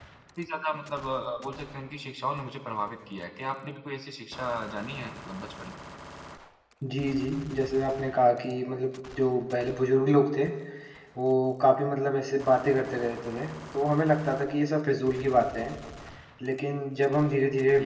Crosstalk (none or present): none